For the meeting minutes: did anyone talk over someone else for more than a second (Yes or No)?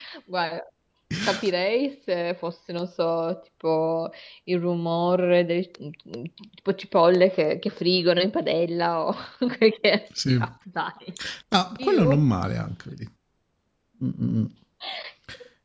No